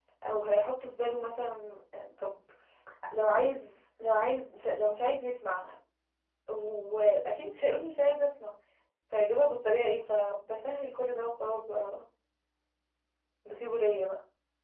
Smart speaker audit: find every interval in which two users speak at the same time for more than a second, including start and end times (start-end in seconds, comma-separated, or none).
none